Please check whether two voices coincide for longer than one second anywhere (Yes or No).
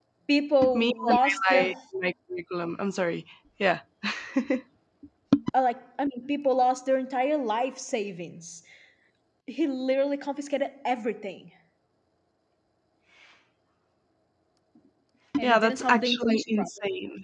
Yes